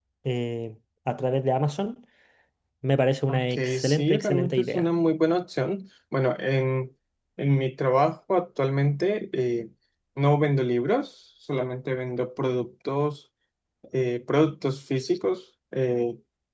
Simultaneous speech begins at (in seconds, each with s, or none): 3.3 s